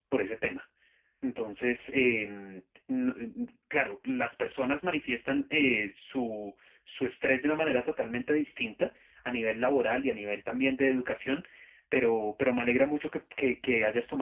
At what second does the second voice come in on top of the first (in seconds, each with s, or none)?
none